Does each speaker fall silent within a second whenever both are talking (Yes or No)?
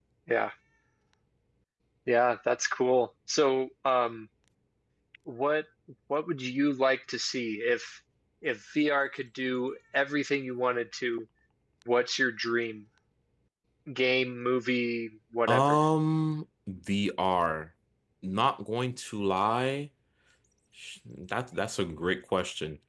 Yes